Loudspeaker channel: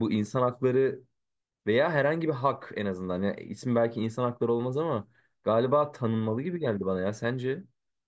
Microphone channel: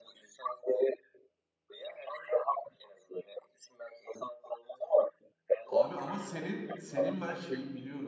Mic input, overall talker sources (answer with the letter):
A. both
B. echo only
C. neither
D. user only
A